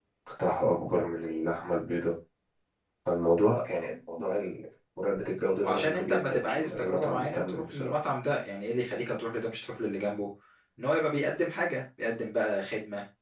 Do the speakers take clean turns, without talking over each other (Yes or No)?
No